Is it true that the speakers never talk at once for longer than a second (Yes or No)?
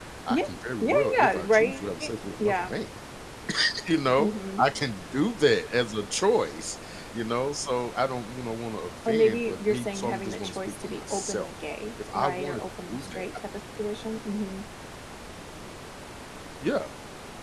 No